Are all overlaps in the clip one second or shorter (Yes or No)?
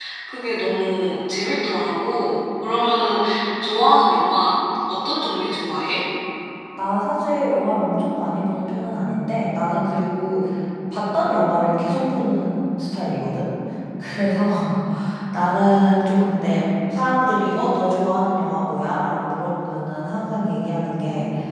Yes